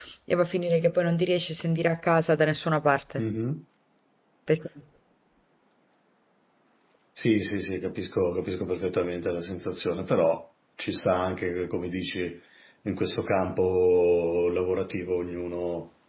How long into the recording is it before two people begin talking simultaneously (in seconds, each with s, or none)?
none